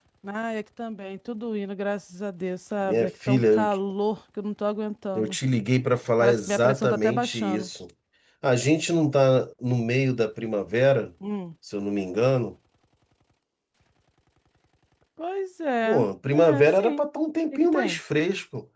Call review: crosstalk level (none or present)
present